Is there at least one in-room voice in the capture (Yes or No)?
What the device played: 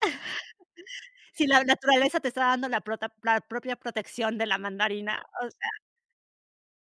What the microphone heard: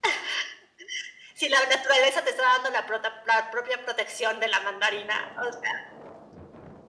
No